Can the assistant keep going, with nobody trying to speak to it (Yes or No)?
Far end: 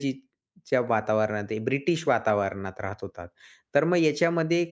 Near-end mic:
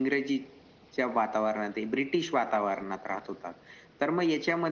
Yes